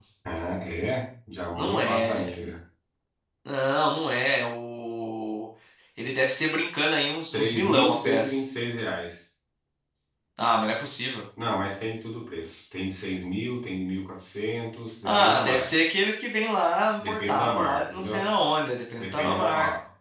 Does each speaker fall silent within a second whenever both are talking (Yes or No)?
No